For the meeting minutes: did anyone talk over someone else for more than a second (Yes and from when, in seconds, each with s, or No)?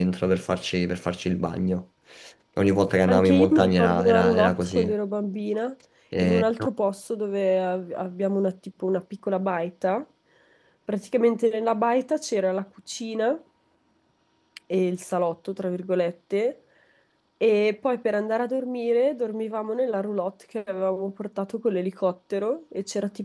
Yes, from 3.1 s